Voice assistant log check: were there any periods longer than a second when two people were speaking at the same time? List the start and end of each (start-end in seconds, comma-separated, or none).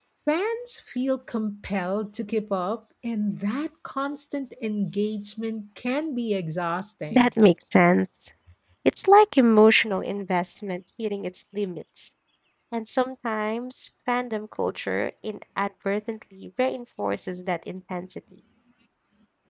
none